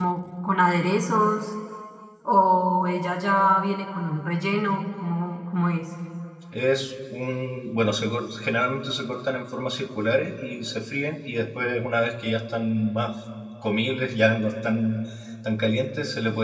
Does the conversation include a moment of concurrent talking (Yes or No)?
No